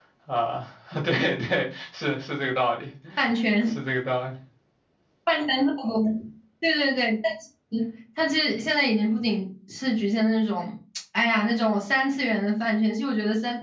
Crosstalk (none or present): none